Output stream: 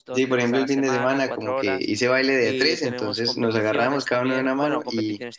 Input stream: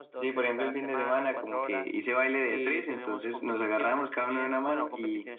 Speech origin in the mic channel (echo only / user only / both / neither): echo only